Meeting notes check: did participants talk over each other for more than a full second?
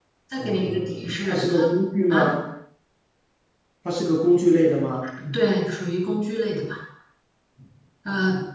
Yes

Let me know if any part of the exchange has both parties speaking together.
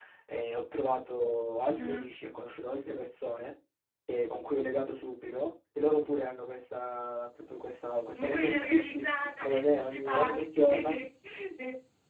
Yes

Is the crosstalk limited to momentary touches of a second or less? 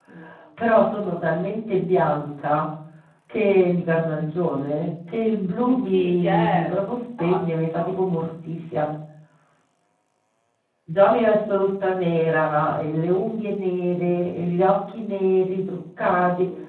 No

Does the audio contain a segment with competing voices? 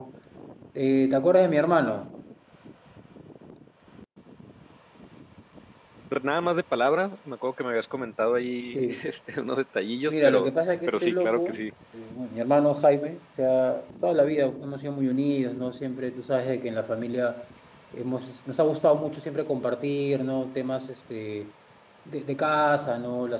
Yes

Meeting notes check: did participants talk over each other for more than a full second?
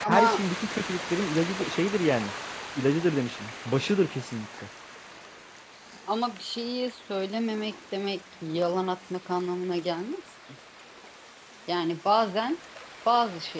No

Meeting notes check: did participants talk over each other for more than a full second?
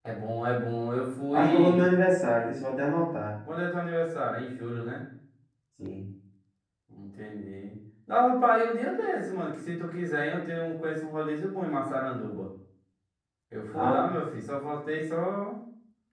No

